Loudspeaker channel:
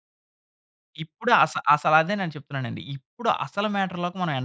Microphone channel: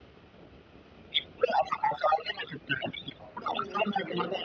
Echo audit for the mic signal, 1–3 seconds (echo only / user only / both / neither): echo only